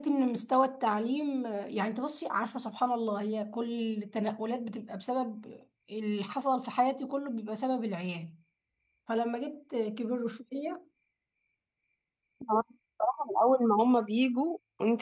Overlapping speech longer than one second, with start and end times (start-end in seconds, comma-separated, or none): none